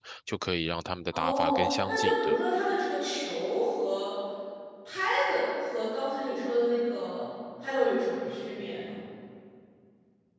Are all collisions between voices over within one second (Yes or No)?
No